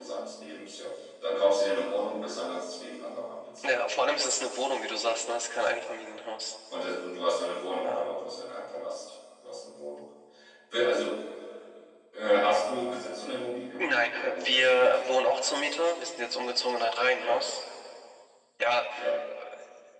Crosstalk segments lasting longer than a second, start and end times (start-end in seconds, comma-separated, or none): 13.8-15.2